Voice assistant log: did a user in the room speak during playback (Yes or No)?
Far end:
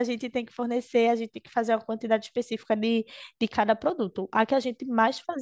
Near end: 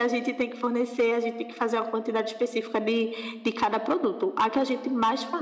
No